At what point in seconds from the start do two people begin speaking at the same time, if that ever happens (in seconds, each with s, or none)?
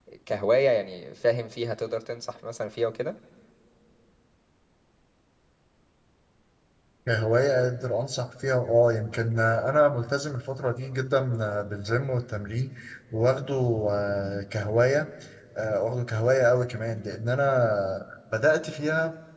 none